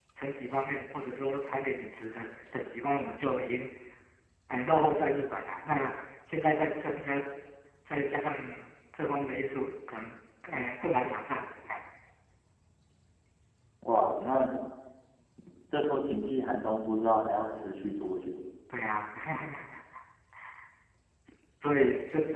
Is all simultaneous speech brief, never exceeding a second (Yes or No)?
Yes